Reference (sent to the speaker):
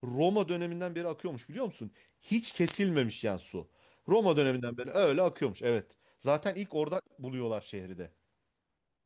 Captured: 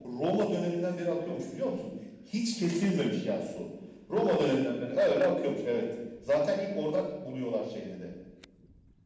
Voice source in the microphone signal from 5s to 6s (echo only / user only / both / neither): echo only